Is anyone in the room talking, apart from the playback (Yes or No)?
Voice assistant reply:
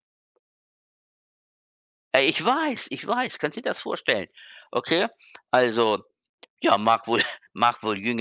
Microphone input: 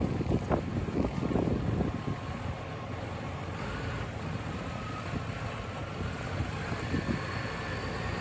No